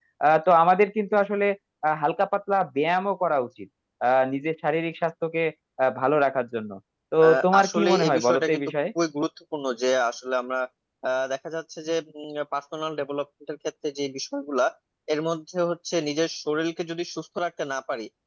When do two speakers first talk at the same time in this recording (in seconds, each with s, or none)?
7.2 s